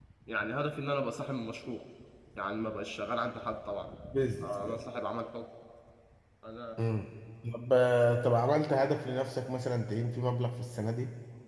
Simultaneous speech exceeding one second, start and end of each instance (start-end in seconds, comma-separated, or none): none